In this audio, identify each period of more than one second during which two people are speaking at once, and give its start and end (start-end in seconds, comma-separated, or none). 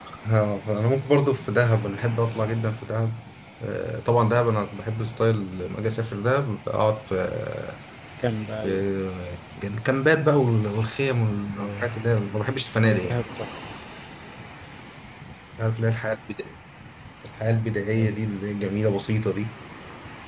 none